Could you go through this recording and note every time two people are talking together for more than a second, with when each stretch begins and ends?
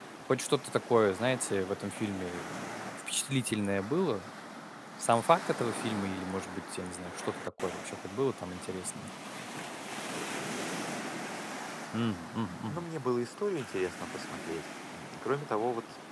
none

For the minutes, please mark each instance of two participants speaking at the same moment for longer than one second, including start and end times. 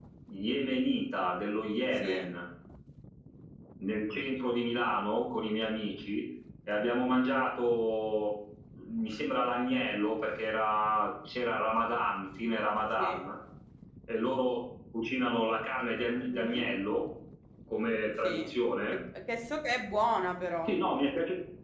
none

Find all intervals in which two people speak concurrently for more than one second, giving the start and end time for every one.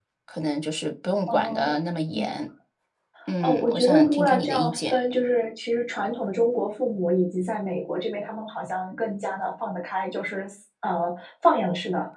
3.4-5.0

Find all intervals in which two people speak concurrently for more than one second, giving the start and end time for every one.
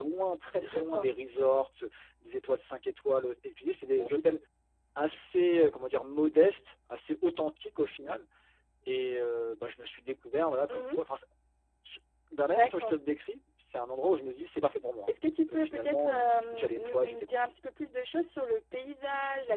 15.5-17.5

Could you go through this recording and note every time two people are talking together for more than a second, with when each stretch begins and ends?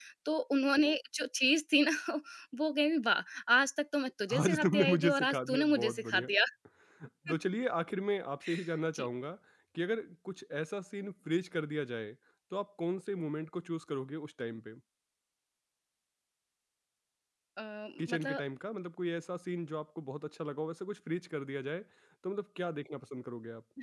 4.4-6.3

